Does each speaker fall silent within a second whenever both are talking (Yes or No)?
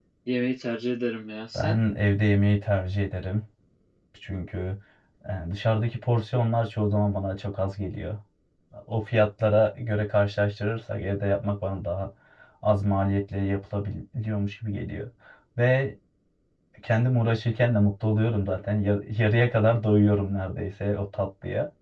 Yes